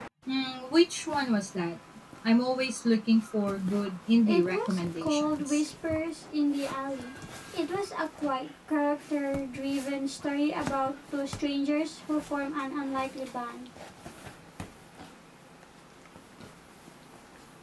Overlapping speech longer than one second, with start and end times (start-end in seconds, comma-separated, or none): 4.3-5.6